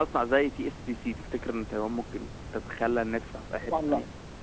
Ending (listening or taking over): taking over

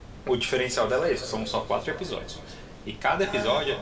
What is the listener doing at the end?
listening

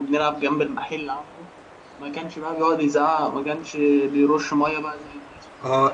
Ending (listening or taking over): taking over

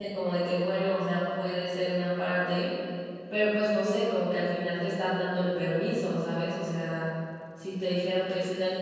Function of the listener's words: listening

